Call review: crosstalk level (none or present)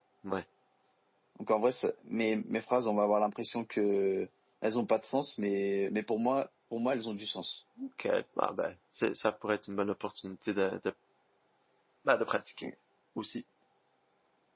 none